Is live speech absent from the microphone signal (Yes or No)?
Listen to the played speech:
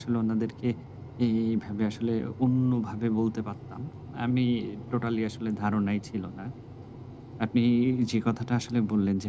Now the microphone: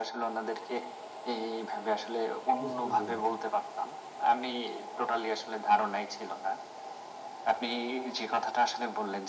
No